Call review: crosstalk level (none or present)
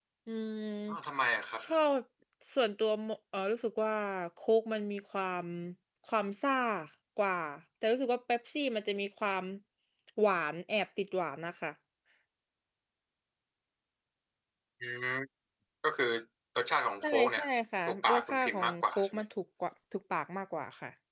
present